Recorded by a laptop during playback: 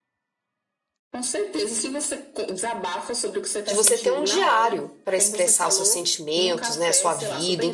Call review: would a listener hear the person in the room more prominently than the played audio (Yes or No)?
Yes